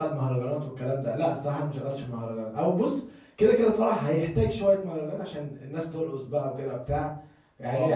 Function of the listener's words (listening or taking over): listening